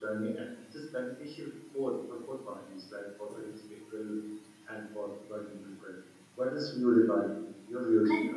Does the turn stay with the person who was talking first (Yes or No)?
No